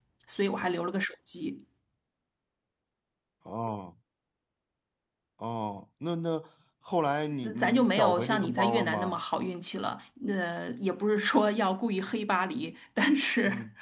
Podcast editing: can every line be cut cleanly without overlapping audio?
No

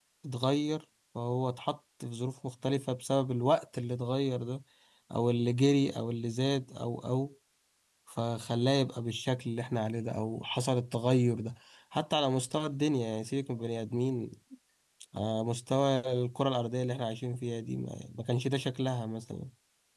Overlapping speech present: No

